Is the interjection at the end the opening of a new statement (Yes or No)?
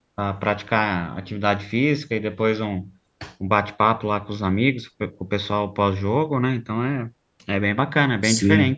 Yes